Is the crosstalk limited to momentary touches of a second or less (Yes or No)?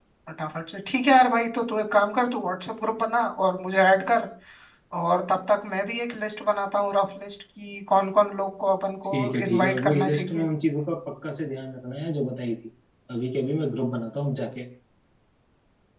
No